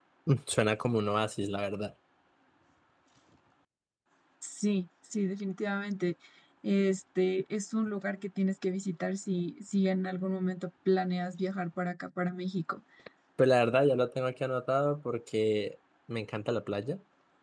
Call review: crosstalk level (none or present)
none